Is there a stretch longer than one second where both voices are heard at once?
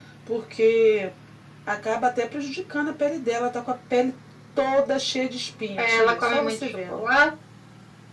Yes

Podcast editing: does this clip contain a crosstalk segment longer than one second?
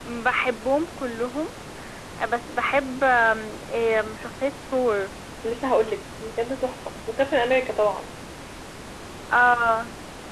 No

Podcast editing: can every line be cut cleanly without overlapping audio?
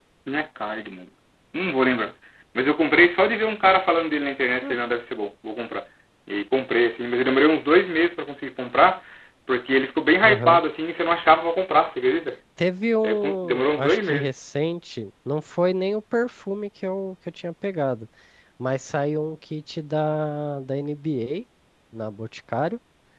No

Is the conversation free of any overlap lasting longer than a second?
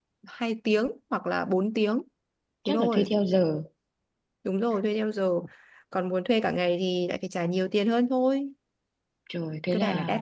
Yes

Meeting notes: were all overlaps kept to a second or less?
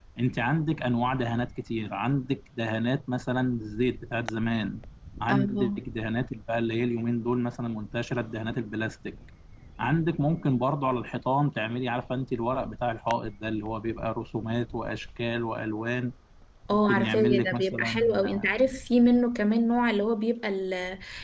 No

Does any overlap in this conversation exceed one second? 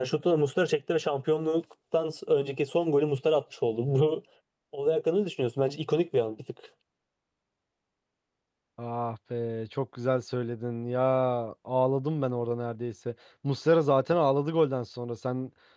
No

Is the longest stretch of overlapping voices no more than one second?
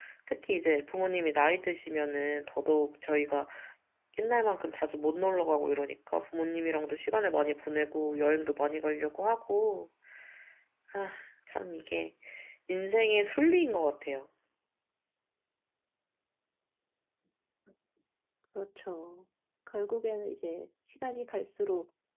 Yes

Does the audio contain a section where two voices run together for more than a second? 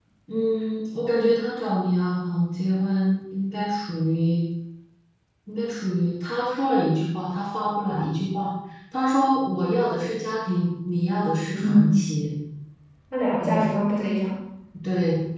No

